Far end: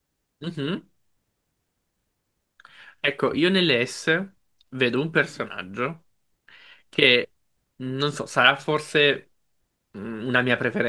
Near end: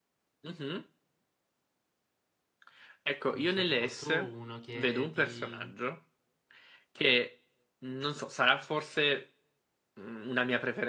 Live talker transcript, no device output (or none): Non so, tipo tu, uno che ti...